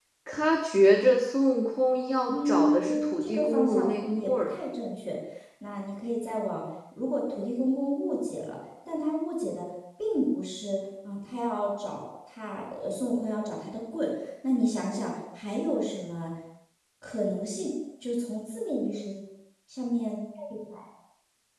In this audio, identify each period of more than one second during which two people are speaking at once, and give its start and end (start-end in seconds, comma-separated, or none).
2.3-4.5